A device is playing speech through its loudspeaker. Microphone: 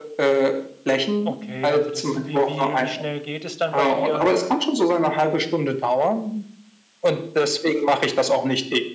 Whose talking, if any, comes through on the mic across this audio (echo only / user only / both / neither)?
both